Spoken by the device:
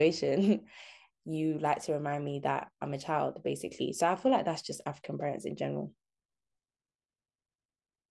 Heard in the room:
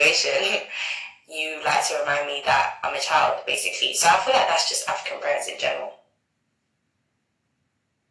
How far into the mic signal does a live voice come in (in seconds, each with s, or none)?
none